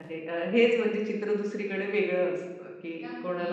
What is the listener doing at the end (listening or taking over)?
listening